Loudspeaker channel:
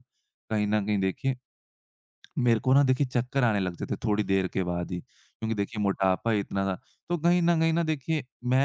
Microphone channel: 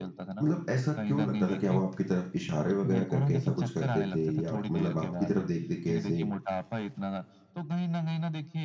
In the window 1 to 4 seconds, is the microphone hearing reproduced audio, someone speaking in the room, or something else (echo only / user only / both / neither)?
both